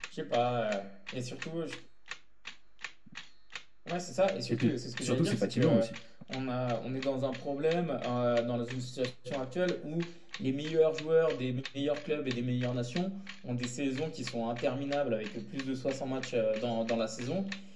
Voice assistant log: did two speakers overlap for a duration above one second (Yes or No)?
Yes